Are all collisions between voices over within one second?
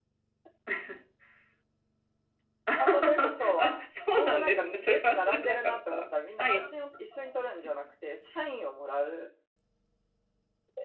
No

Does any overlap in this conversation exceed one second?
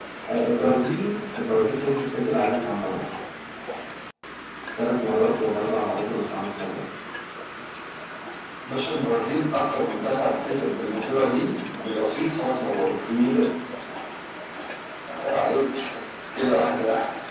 No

